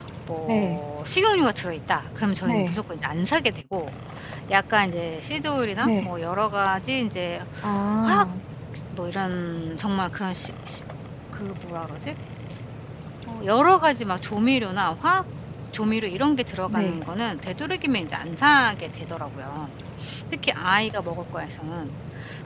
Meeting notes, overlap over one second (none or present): none